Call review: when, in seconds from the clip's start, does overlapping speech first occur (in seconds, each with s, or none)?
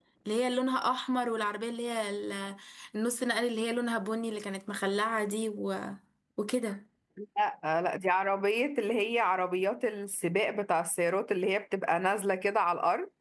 none